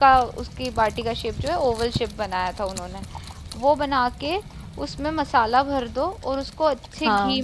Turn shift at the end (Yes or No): No